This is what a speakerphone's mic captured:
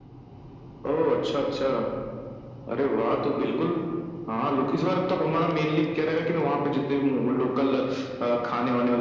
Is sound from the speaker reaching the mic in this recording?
Yes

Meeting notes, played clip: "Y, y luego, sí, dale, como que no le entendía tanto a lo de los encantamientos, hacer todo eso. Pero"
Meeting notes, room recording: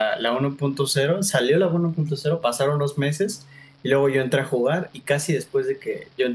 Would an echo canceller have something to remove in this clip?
No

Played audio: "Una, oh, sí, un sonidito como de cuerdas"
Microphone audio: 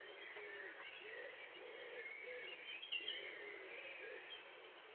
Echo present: No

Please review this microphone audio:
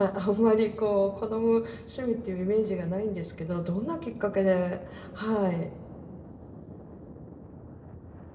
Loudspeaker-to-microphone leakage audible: No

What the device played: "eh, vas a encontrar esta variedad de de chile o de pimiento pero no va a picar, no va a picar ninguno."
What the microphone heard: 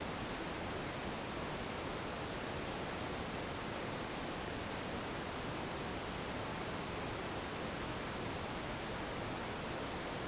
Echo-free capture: Yes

